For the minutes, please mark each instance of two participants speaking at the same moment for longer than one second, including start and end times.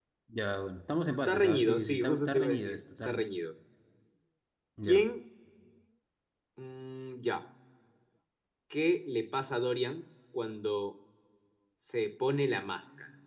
1.2-3.2

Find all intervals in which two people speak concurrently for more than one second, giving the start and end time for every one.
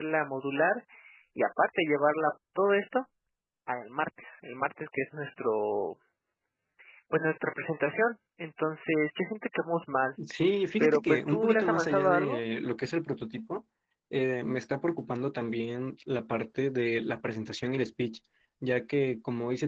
10.8-12.4

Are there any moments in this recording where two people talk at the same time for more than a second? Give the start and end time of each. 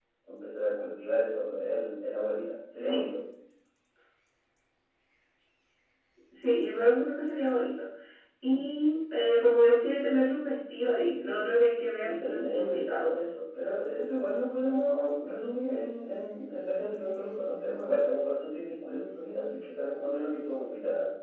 11.8-13.3

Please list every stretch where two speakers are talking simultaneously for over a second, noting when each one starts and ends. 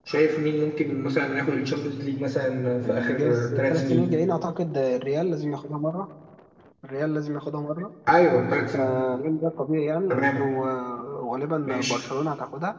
2.8-4.1

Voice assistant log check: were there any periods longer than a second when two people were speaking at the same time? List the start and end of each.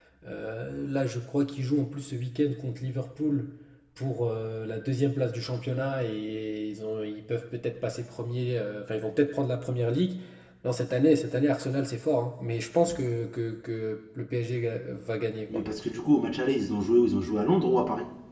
none

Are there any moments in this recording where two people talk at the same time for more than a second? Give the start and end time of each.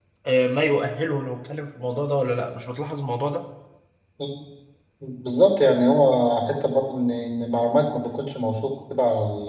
none

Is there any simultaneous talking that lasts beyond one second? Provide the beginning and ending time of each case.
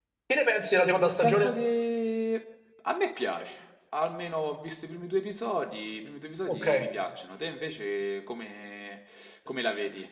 none

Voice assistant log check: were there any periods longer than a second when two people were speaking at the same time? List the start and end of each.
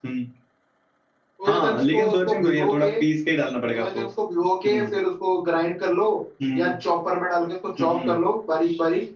1.4-2.9

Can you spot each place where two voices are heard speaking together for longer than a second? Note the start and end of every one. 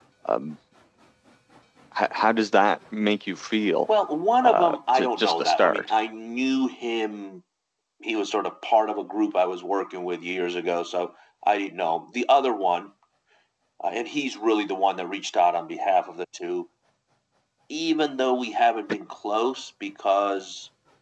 4.4-5.9

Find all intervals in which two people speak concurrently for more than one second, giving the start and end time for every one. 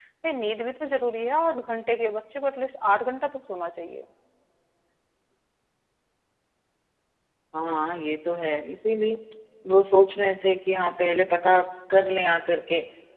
none

